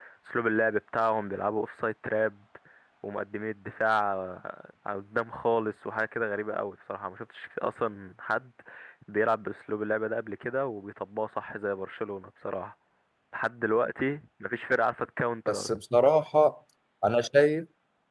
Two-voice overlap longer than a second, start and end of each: none

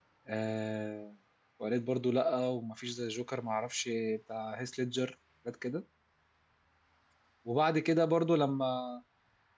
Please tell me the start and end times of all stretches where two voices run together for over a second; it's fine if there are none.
none

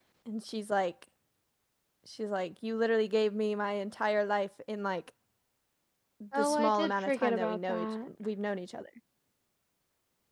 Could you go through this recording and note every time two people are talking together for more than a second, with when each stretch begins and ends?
6.4-8.1

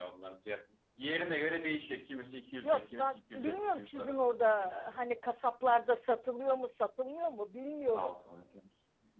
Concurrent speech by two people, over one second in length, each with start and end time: 2.6-4.7

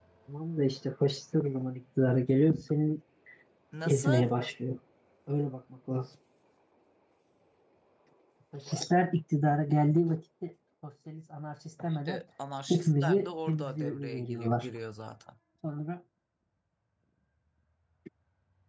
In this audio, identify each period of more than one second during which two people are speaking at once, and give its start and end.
12.7-14.7

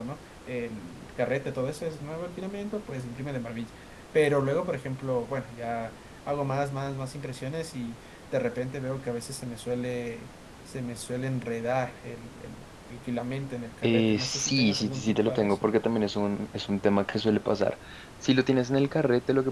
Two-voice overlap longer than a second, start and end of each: 13.9-15.7

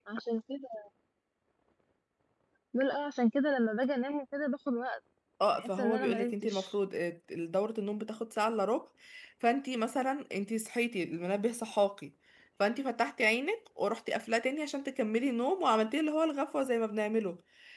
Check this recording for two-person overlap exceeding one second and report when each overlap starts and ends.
5.5-6.7

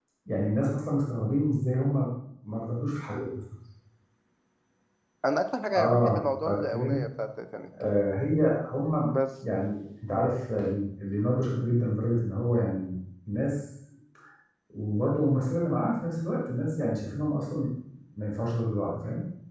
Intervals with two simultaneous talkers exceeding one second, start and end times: 5.8-7.0

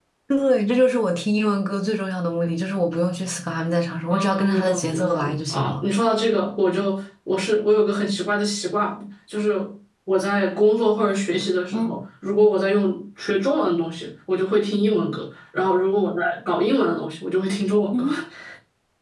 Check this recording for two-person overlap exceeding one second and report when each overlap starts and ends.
4.1-5.8

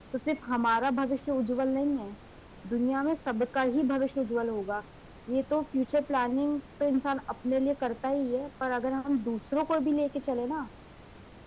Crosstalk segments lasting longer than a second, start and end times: none

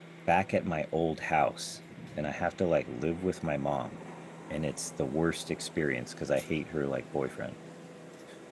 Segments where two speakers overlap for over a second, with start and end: none

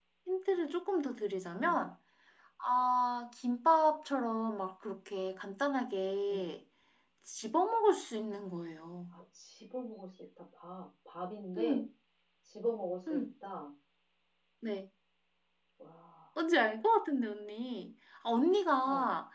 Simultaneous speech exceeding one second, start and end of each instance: none

